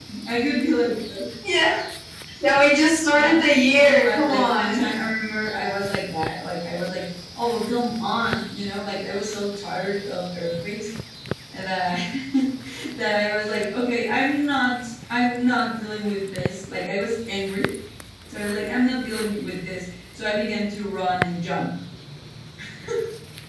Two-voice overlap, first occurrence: 3 s

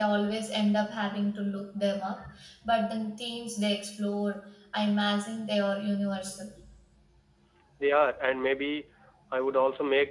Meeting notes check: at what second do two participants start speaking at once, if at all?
none

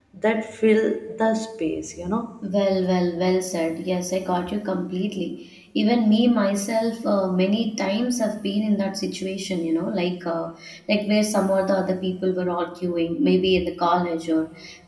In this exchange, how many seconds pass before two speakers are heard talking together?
none

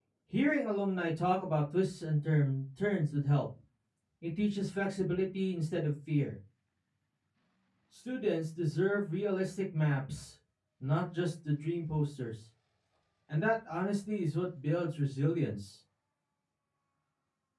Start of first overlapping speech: none

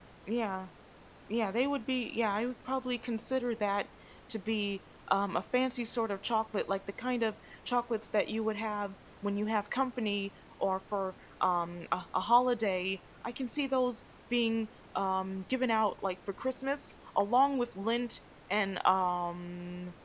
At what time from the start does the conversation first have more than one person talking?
none

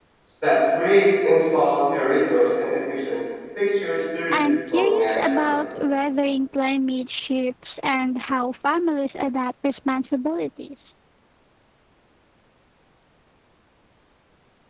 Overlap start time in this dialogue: 4 s

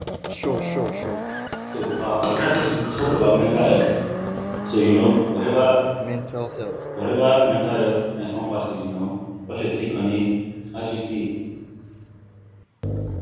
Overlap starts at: none

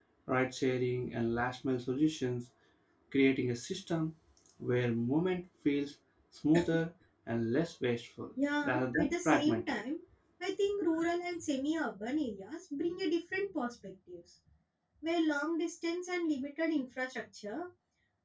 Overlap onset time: 9 s

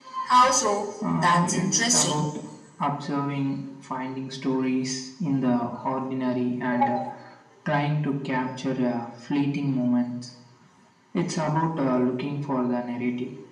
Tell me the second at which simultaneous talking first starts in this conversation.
1 s

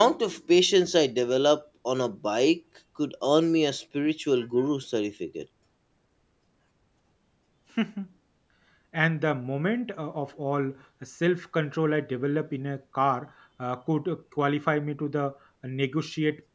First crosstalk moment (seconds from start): none

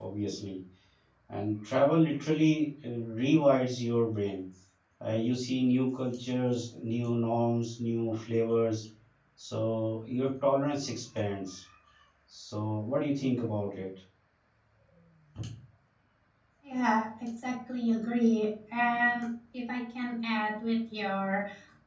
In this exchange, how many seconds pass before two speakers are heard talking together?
none

